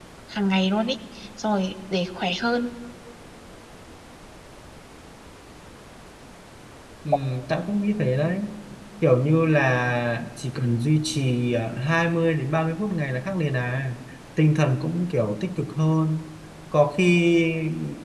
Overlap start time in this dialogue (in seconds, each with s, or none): none